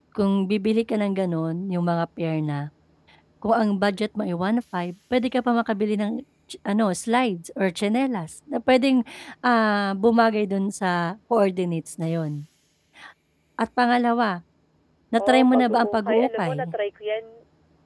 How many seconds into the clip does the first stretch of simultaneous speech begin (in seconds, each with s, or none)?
15.2 s